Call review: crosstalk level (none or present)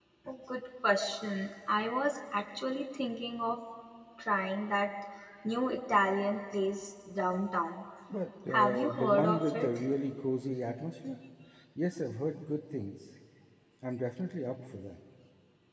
present